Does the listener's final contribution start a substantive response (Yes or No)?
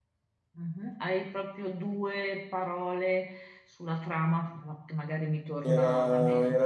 Yes